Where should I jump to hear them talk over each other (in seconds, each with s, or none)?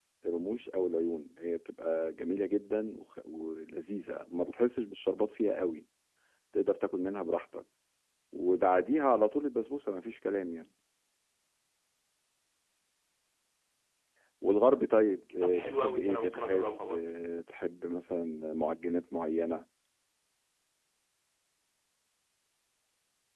15.4 s